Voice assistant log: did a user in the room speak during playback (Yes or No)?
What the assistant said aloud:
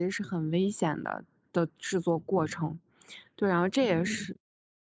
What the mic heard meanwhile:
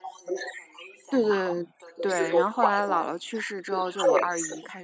Yes